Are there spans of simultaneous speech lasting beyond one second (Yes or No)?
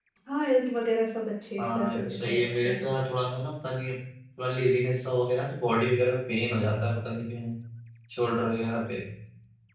Yes